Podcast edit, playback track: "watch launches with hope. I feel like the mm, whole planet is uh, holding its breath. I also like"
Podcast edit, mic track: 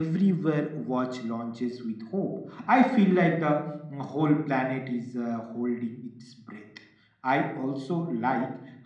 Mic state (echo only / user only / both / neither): echo only